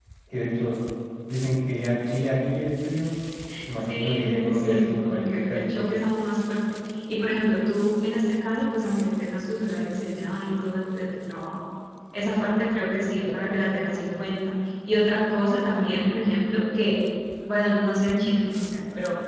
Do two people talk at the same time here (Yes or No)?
Yes